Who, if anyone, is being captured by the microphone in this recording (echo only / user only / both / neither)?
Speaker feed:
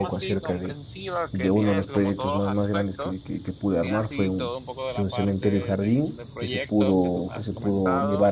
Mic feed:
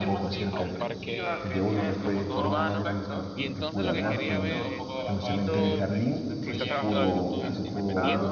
both